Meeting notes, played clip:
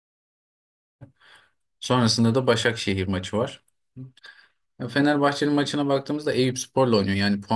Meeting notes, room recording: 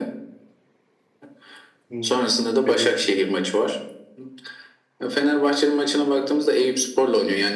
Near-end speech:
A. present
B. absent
A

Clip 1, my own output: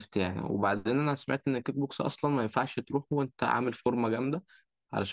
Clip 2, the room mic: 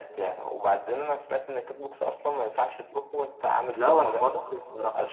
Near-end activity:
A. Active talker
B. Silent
A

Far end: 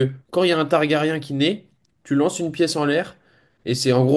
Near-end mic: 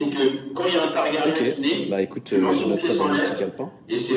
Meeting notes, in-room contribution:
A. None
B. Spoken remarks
B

